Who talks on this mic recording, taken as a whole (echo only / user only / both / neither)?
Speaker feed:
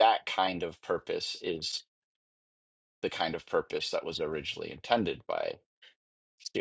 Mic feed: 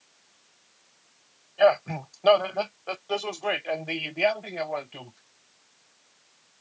user only